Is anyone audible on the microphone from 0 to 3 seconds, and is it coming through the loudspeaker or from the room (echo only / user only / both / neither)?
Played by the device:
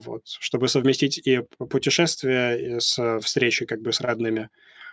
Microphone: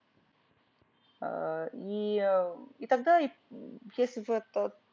user only